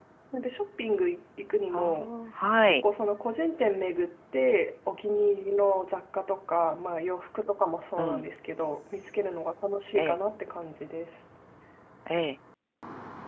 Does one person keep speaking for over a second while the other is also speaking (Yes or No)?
No